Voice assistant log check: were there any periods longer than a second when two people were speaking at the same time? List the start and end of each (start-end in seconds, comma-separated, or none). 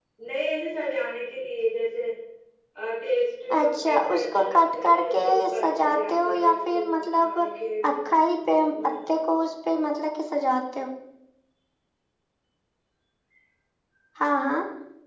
3.6-7.4